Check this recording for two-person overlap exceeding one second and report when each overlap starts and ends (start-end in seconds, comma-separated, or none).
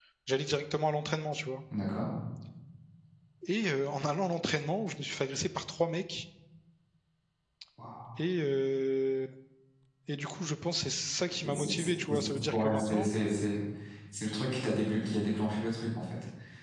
11.5-13.1